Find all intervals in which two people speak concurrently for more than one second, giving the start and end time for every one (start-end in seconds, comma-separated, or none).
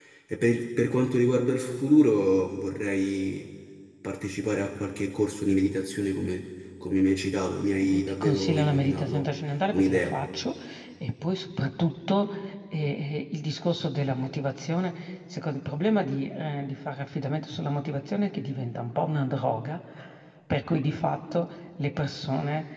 7.9-9.2